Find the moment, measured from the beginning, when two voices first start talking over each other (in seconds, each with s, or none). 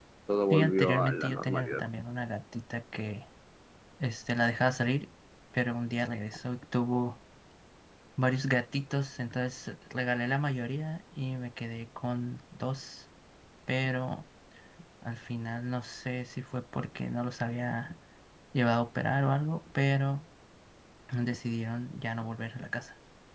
0.5 s